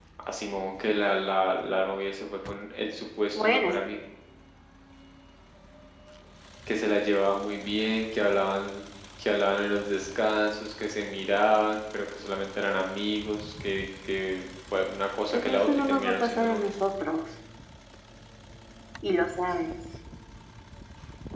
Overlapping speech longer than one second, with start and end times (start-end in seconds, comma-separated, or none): 15.3-16.7